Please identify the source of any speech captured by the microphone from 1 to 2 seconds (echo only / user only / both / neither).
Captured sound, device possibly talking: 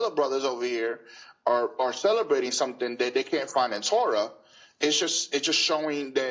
echo only